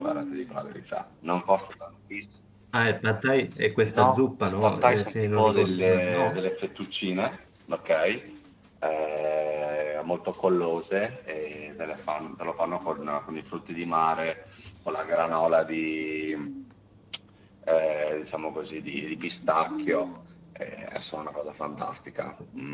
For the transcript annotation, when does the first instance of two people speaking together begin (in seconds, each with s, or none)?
3.9 s